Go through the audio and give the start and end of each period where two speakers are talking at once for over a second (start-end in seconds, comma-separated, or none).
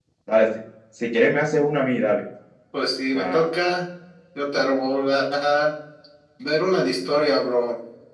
none